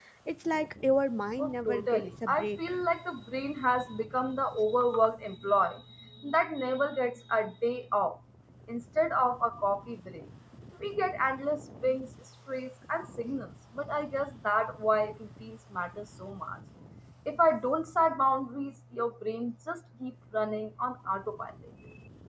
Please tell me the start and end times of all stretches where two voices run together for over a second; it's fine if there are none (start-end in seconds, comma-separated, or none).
1.4-2.7